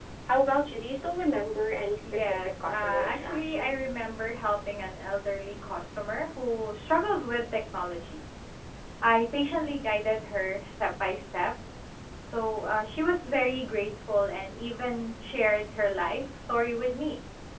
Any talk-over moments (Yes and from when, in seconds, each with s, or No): Yes, from 2.0 s